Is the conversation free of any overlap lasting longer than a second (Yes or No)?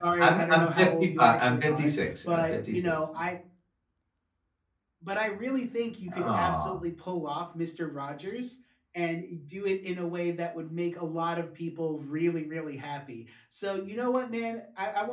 No